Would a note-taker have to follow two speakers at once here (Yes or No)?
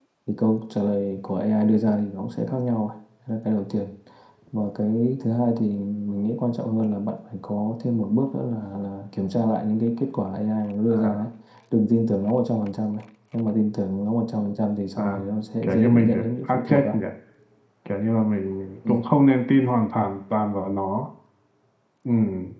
Yes